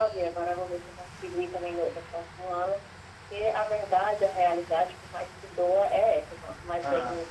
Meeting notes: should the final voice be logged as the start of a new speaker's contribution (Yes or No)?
No